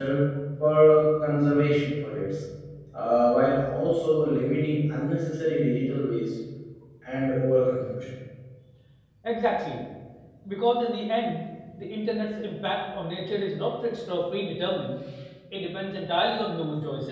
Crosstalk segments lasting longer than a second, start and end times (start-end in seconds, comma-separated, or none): none